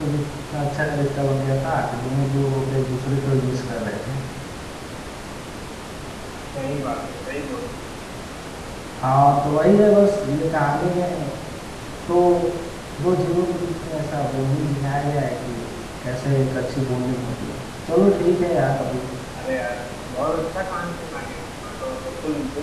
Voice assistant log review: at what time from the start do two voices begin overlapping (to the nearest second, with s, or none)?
none